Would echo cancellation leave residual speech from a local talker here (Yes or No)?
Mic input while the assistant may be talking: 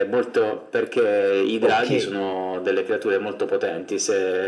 Yes